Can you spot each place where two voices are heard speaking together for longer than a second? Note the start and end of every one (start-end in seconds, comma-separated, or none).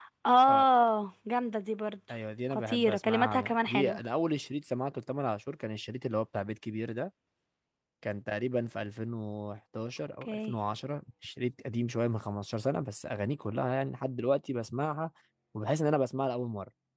2.5-4.0